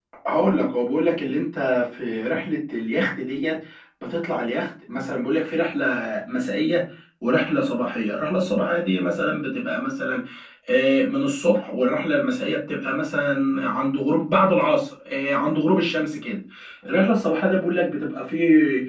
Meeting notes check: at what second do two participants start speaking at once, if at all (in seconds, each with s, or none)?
none